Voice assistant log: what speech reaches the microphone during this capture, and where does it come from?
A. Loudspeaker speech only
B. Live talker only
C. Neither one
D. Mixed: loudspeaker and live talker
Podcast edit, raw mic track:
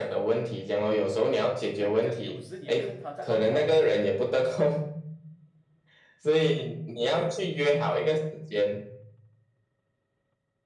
D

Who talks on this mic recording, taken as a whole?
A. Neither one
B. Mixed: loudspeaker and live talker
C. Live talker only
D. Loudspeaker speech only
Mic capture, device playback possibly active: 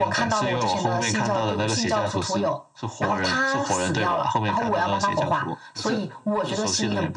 B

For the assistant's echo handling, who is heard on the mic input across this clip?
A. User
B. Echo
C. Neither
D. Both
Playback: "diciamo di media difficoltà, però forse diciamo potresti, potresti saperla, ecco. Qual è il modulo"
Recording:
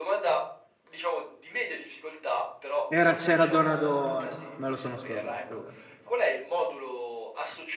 D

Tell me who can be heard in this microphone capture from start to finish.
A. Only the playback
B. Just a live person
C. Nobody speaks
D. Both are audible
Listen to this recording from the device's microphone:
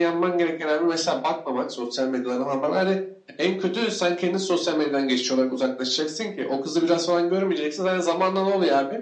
A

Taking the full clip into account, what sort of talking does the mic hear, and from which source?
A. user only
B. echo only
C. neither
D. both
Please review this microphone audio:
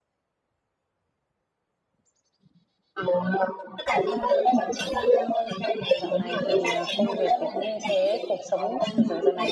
D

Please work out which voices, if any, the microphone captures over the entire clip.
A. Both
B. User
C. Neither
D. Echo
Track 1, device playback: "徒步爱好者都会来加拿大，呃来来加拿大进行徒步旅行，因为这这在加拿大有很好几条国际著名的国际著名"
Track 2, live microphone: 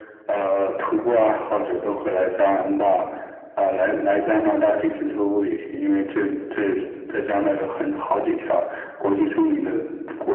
D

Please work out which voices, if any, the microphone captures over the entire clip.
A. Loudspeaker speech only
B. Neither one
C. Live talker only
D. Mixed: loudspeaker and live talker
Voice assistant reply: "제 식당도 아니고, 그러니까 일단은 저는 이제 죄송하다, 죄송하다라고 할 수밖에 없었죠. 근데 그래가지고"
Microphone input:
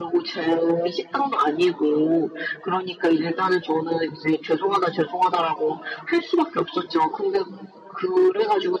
A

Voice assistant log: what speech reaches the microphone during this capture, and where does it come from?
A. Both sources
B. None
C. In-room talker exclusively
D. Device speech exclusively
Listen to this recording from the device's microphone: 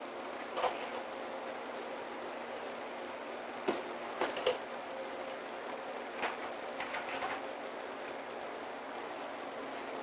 B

